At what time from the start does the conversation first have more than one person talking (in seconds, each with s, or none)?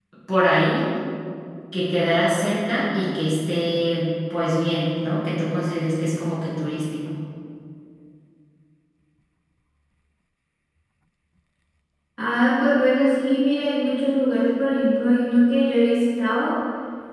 none